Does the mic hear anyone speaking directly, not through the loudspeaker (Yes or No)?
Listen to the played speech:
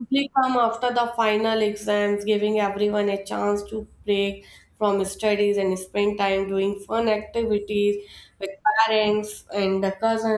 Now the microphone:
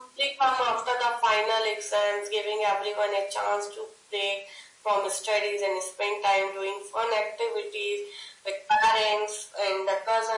No